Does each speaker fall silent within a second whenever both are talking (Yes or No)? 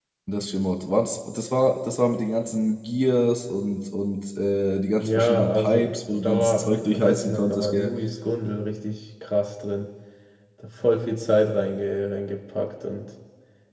No